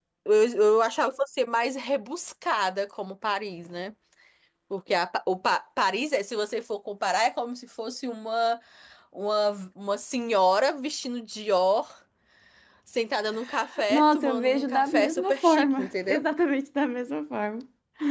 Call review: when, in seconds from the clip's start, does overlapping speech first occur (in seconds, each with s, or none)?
13.9 s